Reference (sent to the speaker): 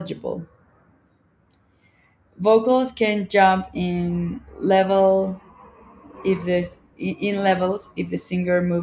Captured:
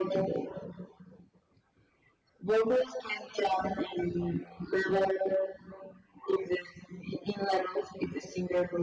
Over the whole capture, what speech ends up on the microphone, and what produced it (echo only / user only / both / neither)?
echo only